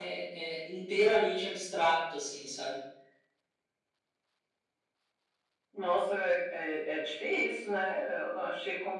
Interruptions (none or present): none